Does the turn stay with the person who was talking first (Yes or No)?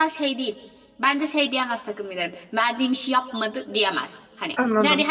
Yes